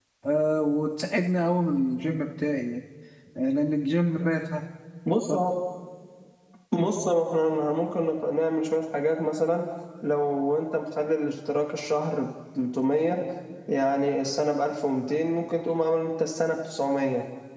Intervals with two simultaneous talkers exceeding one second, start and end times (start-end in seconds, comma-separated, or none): none